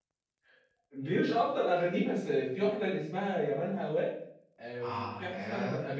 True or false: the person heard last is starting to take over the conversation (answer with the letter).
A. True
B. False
A